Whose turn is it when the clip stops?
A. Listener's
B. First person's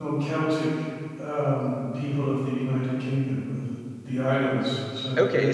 A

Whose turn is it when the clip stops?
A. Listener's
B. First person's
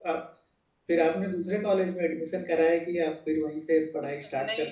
A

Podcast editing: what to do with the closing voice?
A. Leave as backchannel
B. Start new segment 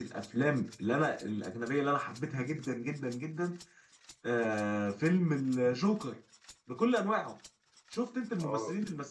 A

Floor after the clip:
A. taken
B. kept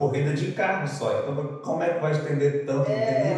A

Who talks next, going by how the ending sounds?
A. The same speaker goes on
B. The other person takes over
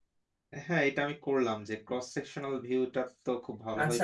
B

